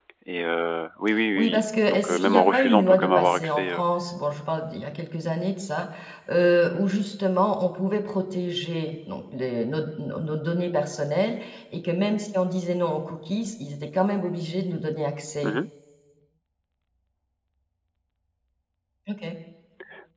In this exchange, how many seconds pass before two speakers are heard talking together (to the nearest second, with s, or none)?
1 s